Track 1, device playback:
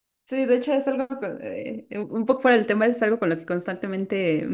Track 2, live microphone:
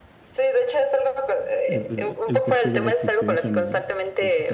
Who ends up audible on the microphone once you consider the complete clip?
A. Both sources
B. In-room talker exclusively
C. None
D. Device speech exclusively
A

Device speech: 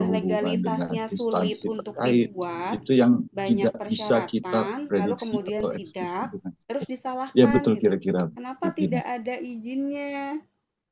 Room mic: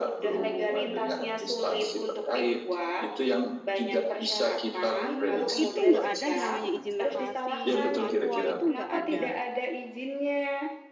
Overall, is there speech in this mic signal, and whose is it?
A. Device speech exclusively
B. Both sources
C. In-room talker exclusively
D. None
B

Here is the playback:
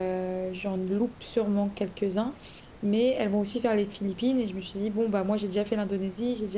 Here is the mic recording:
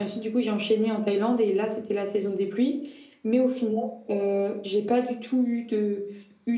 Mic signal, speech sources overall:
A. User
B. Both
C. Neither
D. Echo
A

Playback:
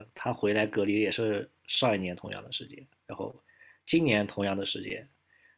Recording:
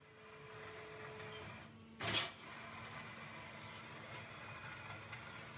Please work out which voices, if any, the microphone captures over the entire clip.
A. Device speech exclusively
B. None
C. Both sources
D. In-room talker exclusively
B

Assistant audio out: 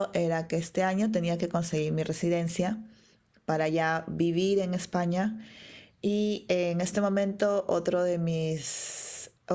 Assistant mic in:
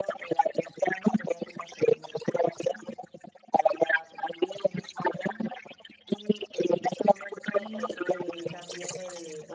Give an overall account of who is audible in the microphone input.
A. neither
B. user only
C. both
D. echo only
C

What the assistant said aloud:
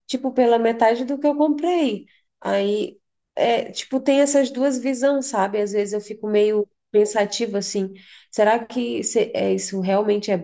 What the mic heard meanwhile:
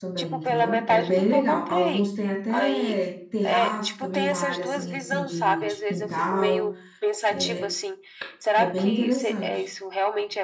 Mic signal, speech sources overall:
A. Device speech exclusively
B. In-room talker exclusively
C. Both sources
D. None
C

